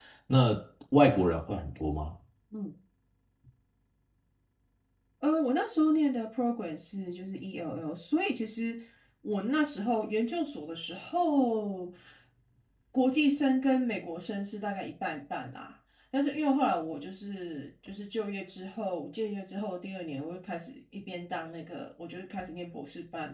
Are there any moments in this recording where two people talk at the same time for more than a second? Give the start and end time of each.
none

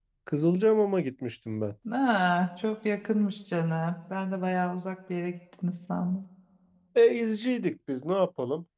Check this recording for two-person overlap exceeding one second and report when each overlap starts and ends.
none

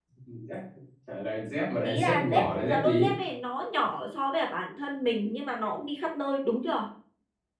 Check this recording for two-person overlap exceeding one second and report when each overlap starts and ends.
1.8-3.1

